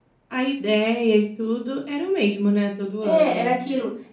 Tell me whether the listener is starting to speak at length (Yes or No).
Yes